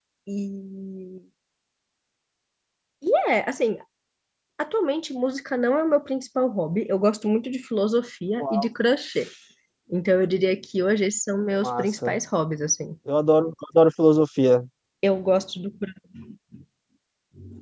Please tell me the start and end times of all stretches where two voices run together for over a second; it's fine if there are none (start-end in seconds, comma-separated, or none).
none